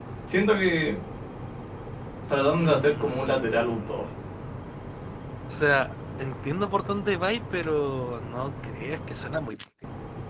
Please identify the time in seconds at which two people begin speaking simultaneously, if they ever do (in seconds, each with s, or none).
2.6 s